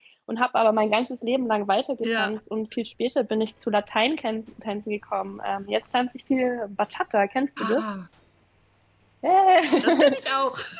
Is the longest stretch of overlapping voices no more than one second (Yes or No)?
Yes